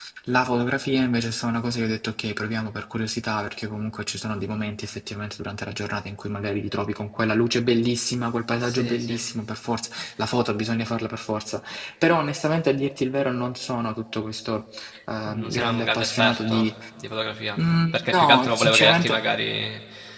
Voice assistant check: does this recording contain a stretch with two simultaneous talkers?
Yes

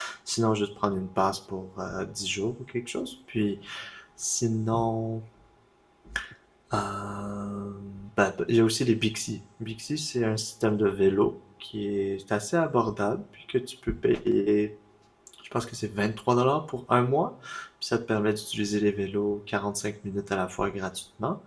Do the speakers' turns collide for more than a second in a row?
No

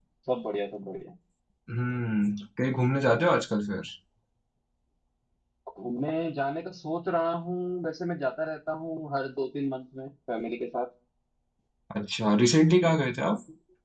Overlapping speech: No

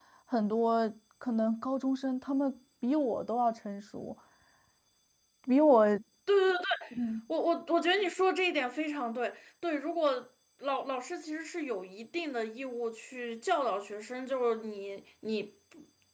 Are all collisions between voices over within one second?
Yes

